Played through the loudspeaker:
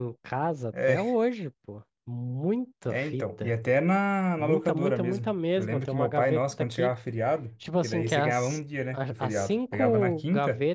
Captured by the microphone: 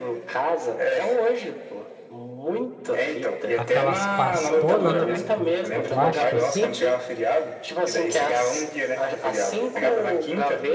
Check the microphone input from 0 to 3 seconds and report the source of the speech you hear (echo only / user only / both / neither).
echo only